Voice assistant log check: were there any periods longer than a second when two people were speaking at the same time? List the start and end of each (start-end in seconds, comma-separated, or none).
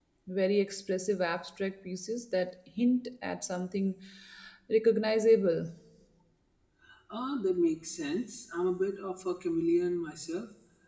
none